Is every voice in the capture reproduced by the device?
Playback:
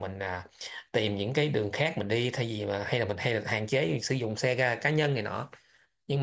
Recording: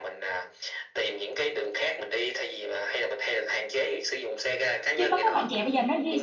No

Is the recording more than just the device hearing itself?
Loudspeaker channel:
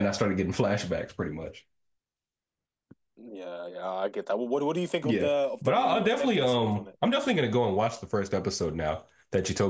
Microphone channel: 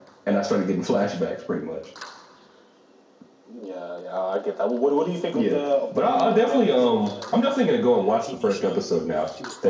Yes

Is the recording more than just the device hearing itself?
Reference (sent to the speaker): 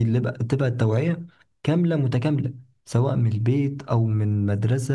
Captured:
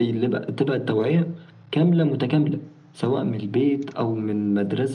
No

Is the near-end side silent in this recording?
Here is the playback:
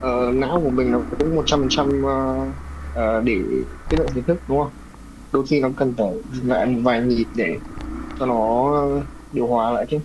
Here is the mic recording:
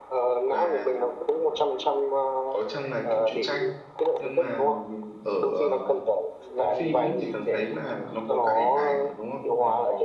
No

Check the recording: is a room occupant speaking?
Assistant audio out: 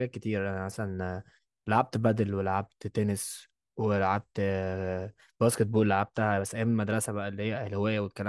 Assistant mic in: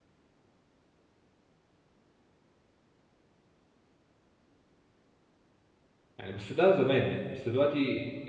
Yes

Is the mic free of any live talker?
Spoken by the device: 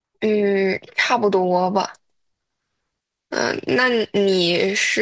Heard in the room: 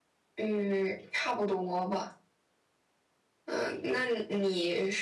Yes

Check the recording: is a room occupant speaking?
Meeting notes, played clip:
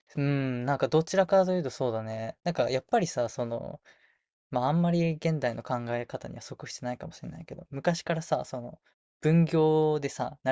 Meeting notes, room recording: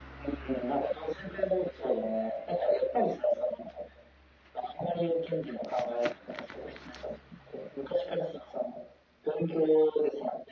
No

